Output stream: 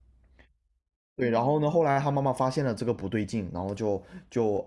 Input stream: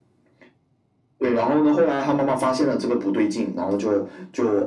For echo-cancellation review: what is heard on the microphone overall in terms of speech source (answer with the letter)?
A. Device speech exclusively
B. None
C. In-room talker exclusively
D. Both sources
A